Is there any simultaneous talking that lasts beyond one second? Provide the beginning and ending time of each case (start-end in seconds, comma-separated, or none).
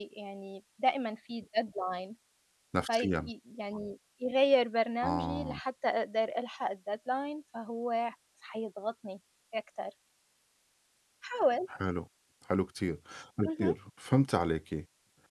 none